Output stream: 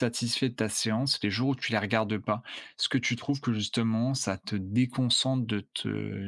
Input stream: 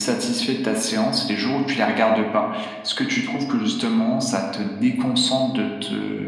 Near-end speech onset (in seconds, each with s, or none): none